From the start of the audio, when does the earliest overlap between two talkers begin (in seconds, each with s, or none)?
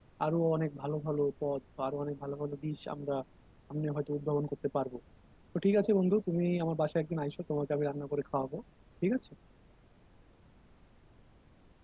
none